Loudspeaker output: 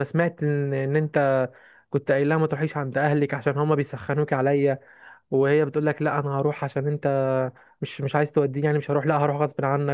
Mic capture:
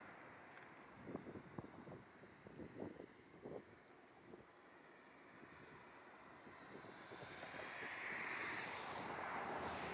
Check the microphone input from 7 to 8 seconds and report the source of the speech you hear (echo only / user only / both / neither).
neither